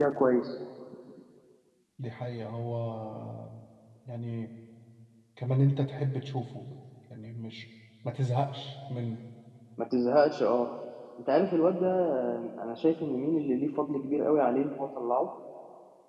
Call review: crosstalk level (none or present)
none